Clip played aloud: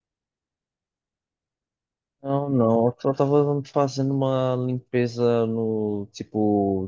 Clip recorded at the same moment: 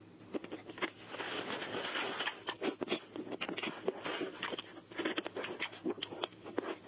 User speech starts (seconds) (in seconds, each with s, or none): none